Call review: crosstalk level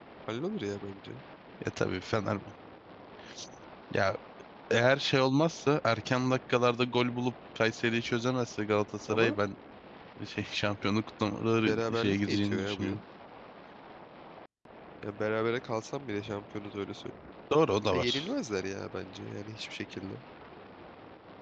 present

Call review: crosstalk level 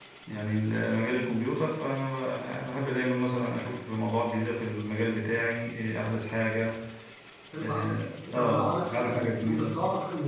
present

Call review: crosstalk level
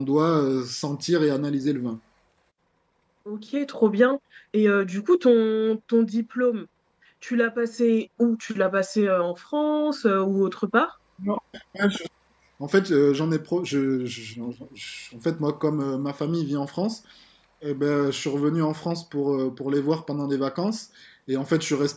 none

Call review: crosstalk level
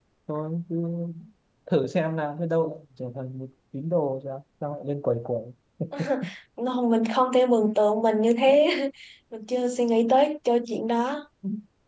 none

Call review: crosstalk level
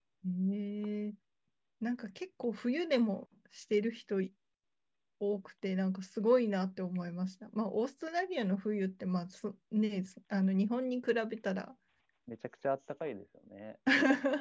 none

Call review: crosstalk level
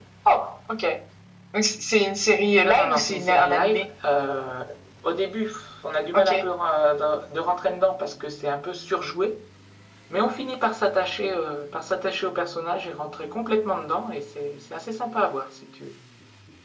present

